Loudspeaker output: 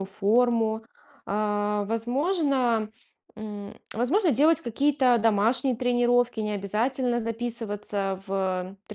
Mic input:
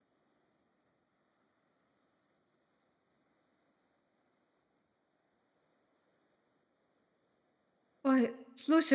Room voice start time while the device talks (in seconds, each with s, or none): 8.0 s